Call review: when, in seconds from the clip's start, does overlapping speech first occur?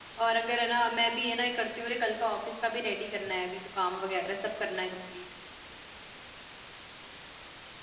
none

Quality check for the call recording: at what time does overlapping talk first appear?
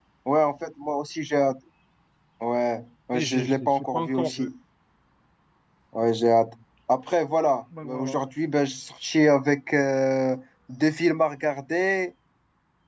3.1 s

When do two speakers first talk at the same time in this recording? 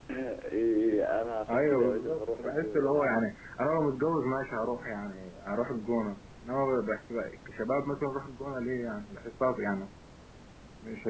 1.5 s

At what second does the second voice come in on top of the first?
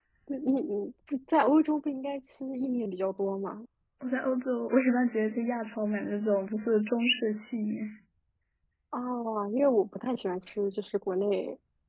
none

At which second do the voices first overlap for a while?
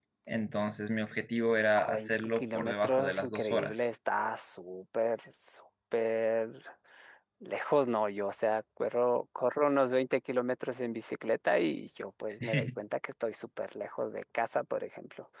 1.8 s

